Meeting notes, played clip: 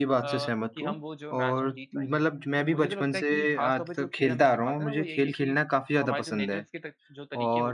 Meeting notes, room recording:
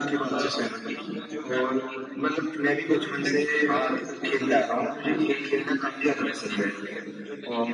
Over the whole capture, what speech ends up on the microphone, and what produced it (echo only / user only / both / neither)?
echo only